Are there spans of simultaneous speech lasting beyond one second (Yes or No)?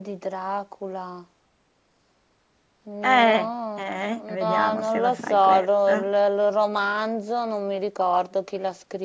Yes